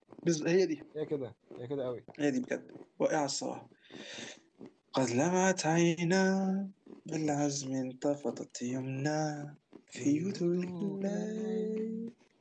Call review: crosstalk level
present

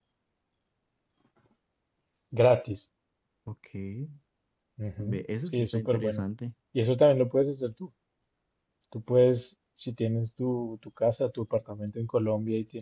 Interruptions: present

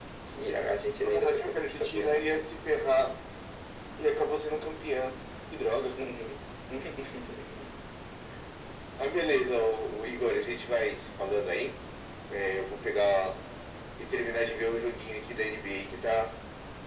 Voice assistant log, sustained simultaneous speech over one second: present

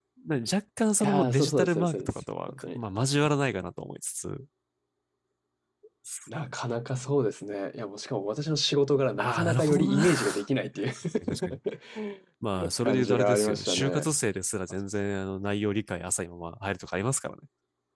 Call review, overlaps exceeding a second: present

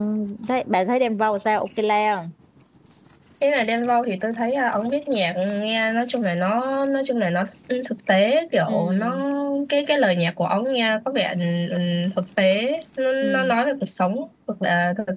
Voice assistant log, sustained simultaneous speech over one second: none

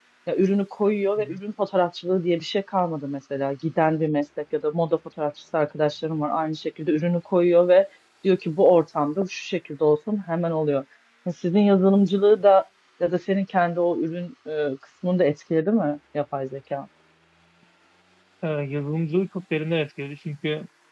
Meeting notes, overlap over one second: none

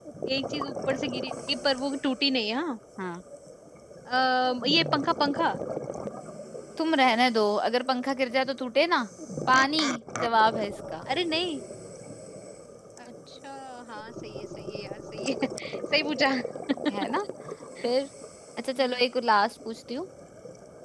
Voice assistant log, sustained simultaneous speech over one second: none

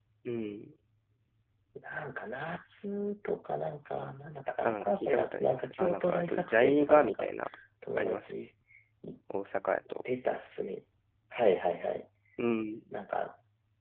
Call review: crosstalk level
present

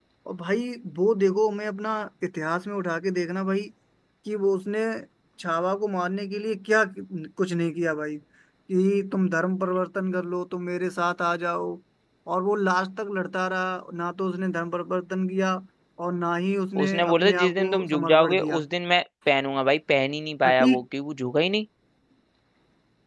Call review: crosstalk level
present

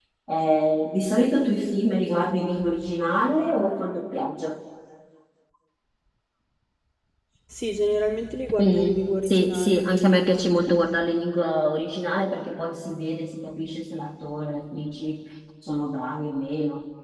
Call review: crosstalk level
present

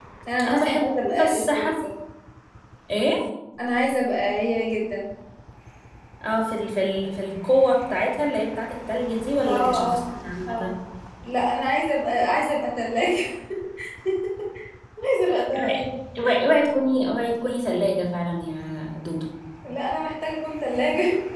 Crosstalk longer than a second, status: present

